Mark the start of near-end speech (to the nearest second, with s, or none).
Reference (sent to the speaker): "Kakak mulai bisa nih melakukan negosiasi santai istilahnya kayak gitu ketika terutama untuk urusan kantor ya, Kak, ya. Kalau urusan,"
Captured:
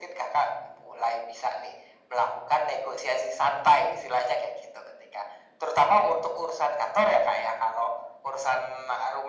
none